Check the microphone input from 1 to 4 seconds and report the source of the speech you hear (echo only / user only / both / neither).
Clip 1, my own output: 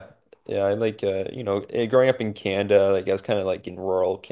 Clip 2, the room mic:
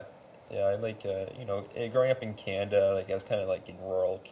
echo only